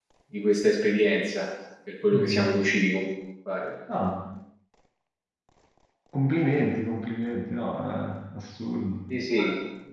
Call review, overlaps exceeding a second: none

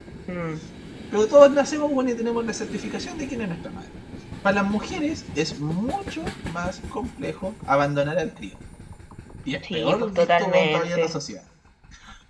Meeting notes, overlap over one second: present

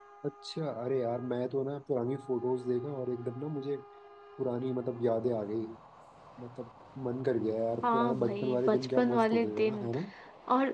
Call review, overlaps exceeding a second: present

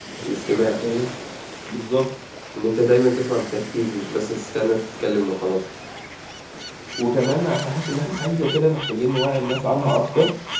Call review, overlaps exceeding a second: none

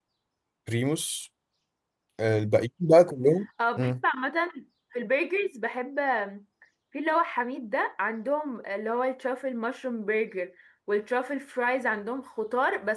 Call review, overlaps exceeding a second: none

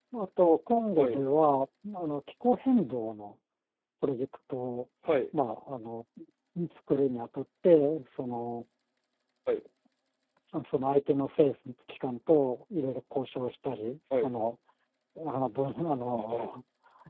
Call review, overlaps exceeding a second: none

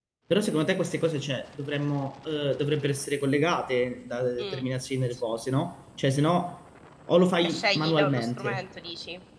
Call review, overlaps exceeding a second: present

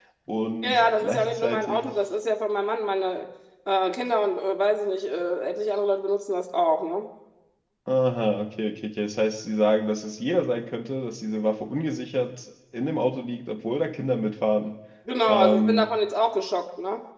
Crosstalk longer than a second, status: present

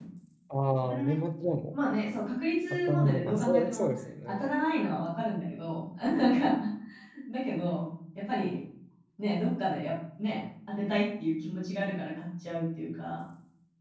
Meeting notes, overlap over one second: present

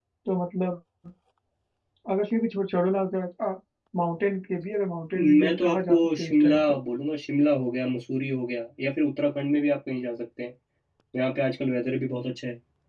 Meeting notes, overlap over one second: present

